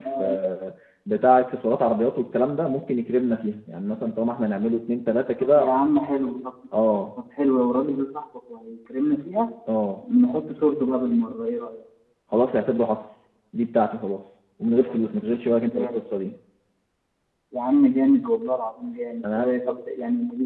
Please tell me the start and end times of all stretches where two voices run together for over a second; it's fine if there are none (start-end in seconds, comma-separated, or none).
none